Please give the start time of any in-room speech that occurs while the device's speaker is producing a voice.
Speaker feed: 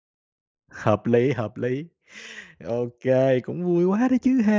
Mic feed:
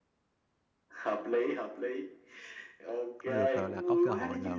3.2 s

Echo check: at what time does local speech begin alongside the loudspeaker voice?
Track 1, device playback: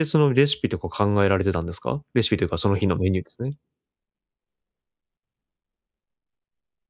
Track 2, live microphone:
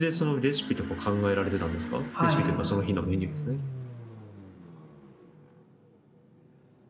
2.1 s

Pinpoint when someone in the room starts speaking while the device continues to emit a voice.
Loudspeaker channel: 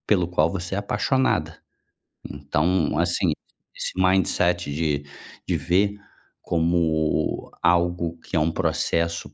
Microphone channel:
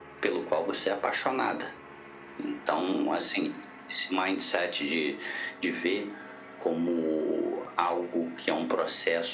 none

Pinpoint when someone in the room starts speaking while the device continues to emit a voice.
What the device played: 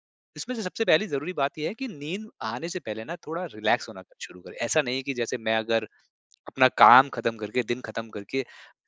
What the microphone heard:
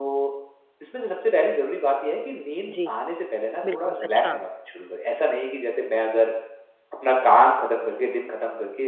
2.7 s

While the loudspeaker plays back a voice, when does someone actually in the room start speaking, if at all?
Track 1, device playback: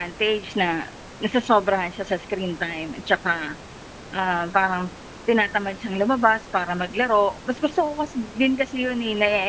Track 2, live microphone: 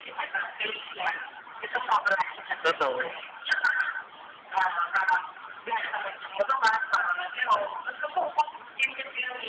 2.6 s

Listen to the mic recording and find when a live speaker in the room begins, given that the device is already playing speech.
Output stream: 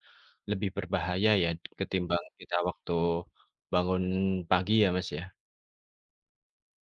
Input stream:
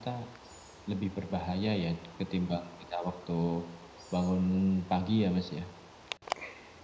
none

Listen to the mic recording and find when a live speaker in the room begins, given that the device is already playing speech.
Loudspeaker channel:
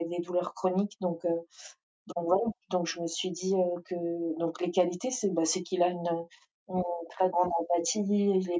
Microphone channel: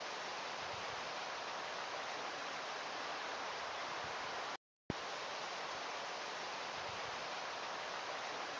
none

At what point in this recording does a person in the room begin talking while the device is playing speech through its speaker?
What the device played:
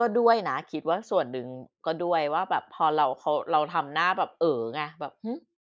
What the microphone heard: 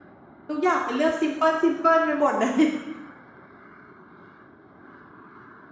0.5 s

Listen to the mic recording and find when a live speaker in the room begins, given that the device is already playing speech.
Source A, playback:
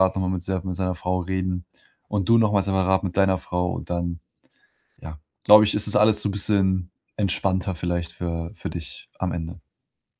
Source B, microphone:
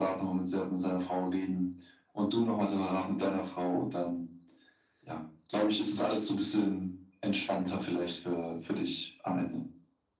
none

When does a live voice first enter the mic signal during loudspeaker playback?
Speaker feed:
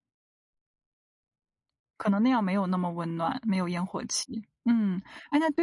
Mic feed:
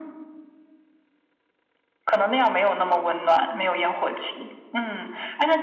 none

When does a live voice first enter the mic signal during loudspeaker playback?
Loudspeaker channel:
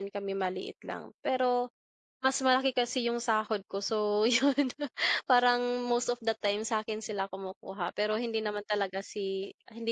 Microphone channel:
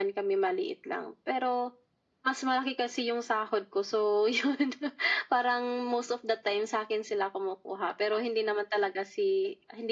none

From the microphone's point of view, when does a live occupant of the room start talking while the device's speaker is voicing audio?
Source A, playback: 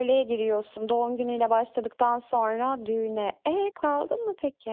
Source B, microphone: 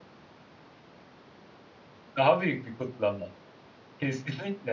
2.2 s

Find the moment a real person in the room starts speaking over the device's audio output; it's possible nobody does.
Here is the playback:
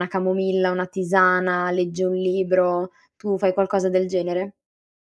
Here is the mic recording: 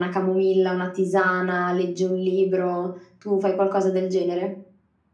none

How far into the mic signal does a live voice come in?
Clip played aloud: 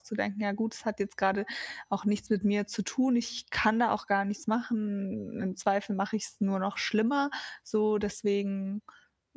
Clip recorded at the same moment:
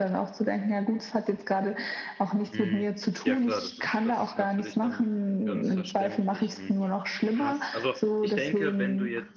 2.5 s

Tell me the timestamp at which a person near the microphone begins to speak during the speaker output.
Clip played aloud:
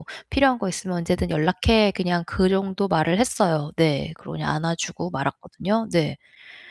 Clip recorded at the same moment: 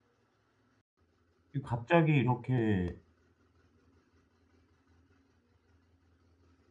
1.5 s

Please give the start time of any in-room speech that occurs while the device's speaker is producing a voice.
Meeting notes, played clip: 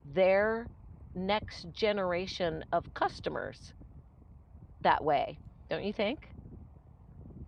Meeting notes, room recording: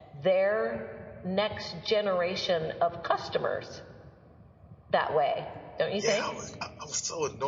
6.0 s

